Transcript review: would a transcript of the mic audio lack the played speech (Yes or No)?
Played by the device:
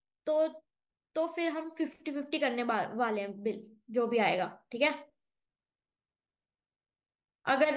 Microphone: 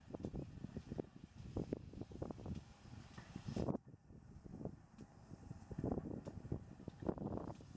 Yes